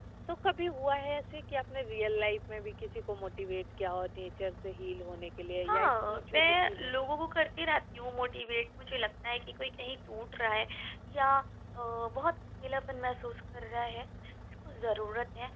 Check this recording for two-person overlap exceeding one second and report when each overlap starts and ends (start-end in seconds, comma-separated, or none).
5.7-6.9